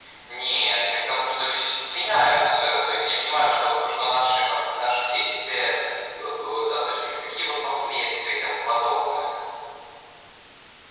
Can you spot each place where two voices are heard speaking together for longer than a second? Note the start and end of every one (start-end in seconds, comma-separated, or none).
none